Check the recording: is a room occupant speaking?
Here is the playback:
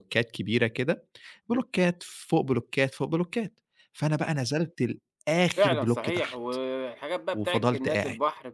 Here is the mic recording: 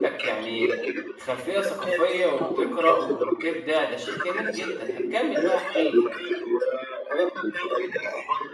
Yes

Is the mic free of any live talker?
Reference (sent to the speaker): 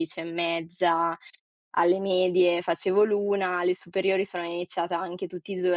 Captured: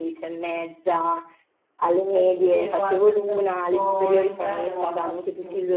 No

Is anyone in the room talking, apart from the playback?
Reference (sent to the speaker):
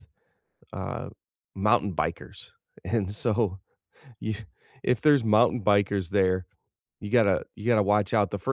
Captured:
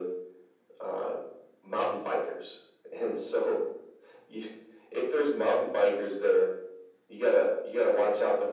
No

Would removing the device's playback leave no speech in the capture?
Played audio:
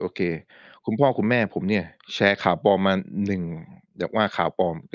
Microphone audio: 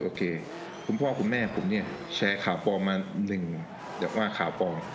Yes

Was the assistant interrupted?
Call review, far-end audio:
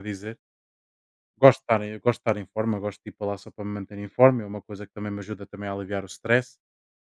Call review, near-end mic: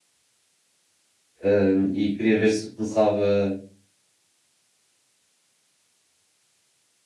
Yes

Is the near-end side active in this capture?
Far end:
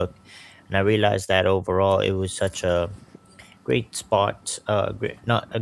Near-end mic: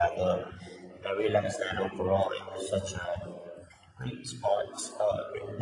No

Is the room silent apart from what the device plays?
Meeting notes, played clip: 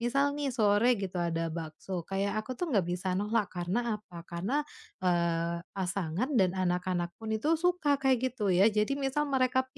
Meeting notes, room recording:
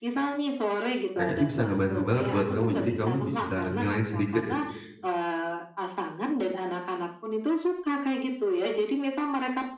No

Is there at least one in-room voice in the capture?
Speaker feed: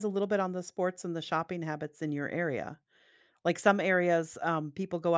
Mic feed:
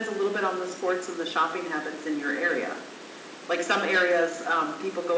No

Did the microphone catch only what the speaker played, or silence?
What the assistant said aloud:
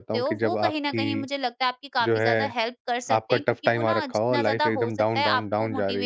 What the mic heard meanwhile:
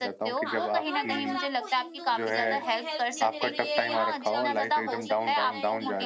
No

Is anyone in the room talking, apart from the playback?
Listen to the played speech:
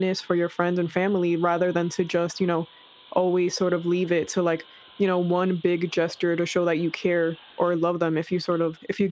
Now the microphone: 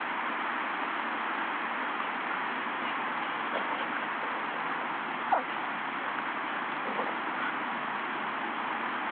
No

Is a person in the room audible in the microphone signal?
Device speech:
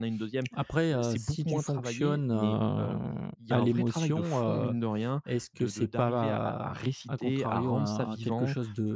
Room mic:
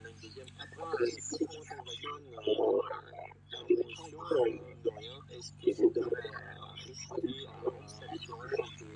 No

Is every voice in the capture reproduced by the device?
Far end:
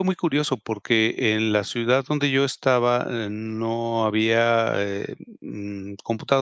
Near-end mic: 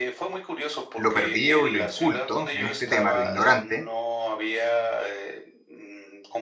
No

